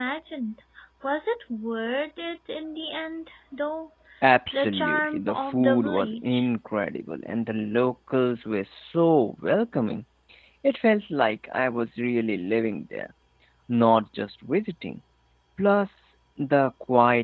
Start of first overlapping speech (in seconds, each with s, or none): 4.5 s